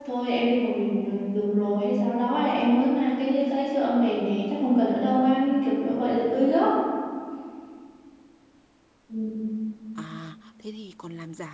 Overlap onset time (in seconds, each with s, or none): none